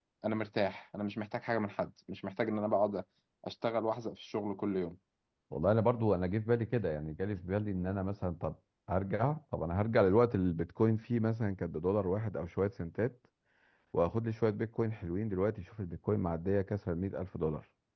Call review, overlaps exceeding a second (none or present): none